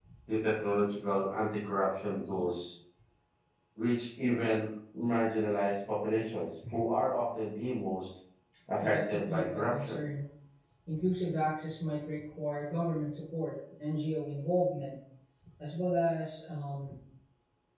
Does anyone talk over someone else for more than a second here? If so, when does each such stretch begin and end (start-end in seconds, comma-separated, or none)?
8.8-10.0